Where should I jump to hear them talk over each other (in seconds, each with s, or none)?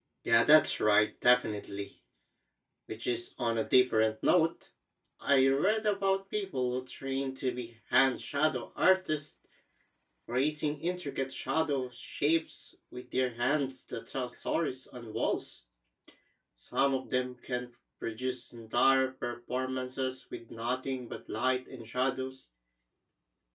none